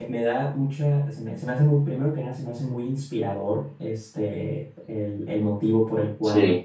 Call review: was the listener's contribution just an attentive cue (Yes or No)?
Yes